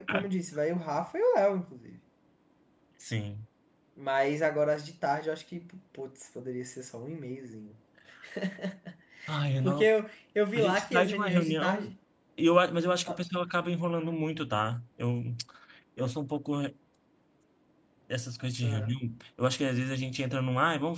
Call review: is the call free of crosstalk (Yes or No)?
No